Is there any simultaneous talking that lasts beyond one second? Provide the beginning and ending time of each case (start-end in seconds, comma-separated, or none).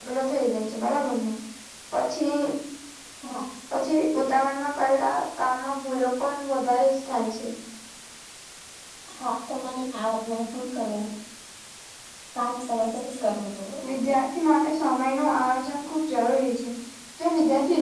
none